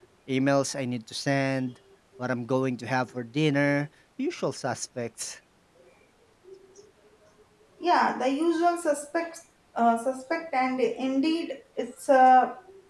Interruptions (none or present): none